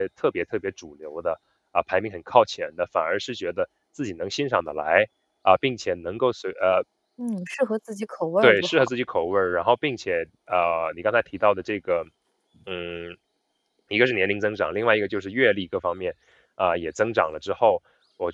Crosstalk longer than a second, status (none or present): none